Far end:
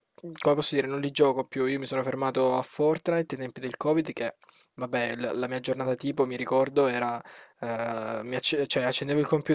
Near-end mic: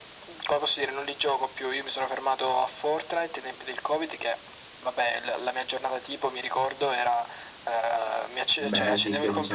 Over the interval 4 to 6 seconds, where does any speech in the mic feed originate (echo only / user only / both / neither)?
echo only